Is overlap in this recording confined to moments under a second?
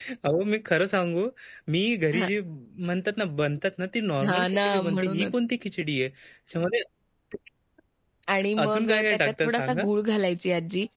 No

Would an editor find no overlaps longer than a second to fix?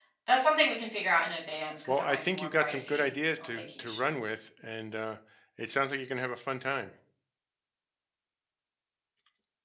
No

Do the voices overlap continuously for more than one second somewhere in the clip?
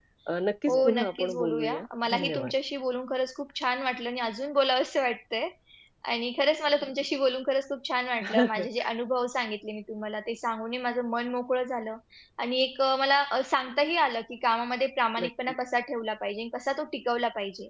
Yes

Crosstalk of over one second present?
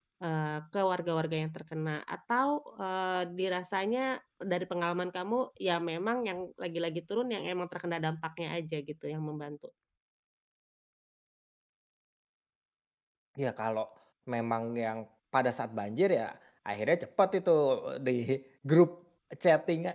No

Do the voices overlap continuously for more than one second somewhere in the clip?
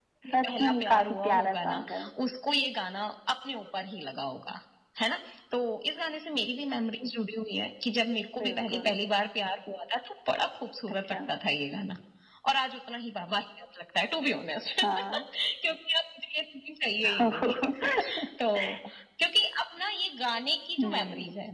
Yes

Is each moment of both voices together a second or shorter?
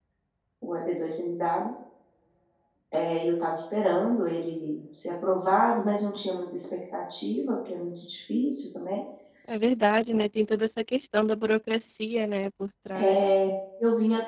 Yes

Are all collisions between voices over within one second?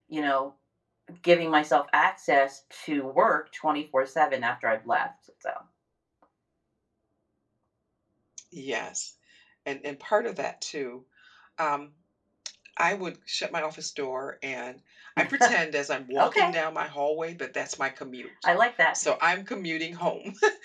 Yes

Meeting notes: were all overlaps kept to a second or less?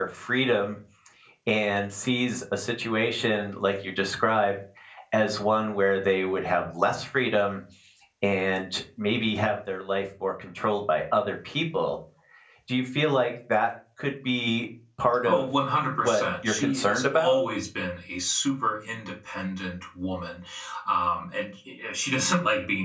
No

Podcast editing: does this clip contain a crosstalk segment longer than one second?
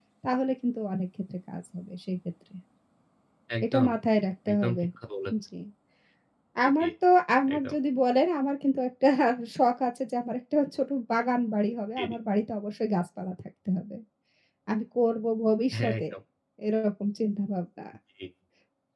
No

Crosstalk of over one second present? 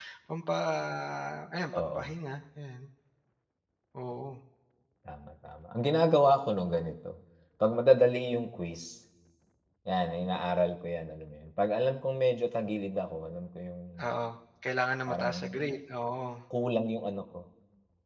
No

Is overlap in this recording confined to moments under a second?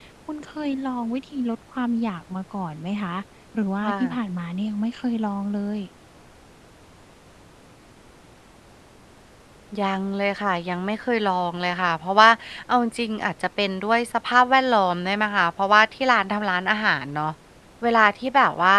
Yes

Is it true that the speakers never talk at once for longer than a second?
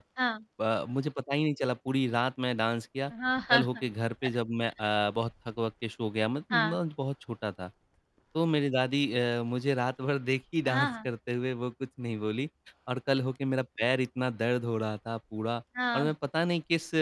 Yes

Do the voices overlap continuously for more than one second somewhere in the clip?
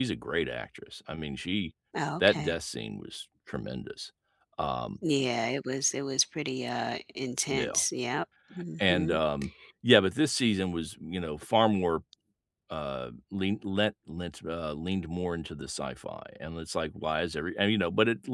No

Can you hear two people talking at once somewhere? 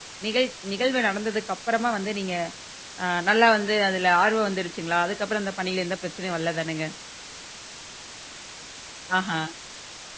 No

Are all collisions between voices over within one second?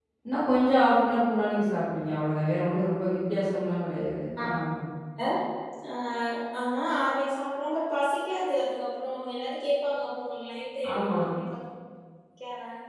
Yes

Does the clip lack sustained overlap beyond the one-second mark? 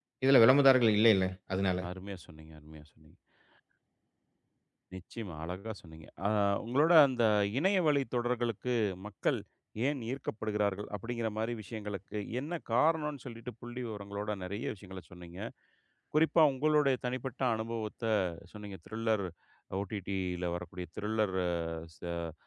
Yes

